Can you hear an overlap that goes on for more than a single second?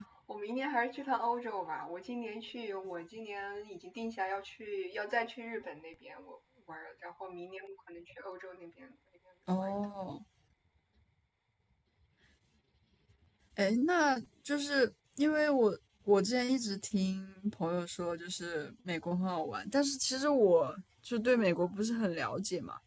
No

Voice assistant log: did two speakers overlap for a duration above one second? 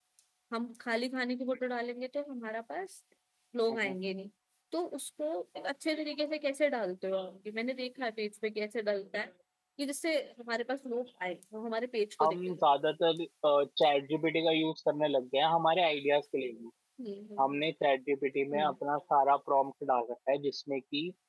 No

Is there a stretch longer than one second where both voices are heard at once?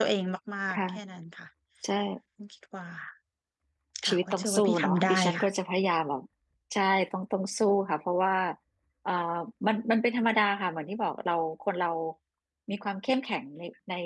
Yes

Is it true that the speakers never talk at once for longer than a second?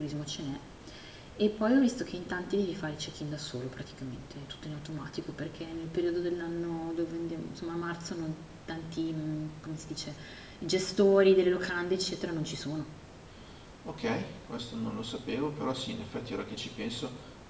Yes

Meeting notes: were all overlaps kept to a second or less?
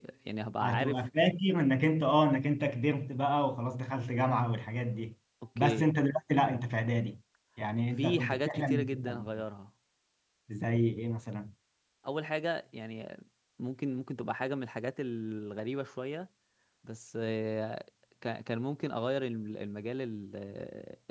No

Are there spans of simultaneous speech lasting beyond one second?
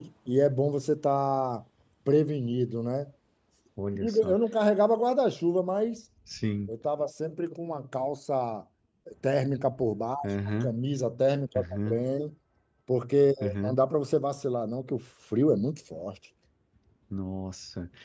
No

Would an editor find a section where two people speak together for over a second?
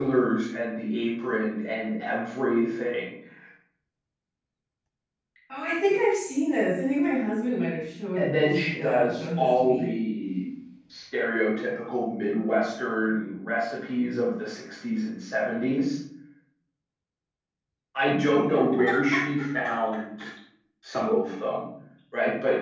Yes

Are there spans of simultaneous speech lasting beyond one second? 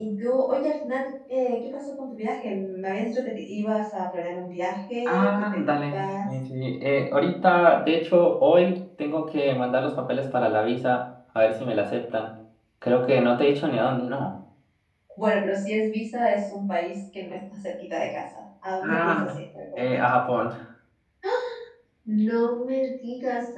Yes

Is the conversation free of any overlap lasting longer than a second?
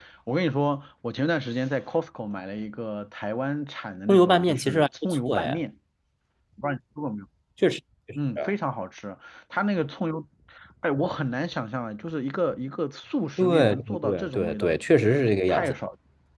No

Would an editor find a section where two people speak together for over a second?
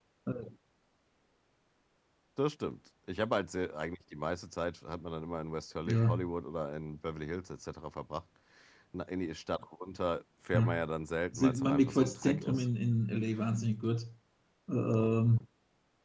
Yes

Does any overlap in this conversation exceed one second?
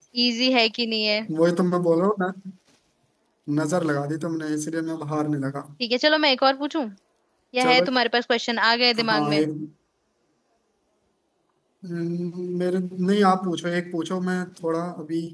No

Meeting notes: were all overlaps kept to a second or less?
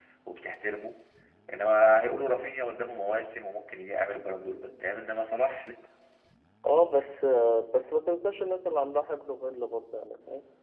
Yes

